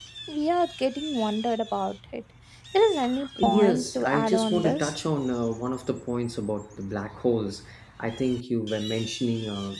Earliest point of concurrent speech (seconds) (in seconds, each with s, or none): 3.4 s